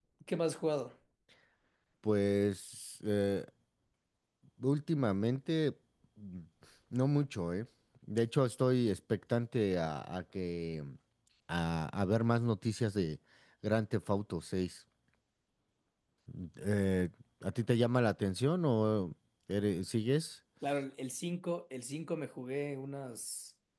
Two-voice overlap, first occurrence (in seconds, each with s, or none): none